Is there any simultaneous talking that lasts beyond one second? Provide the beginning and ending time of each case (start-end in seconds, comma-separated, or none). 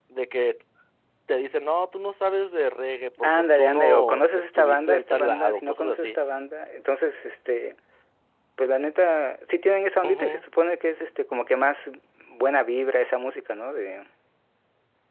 3.2-6.2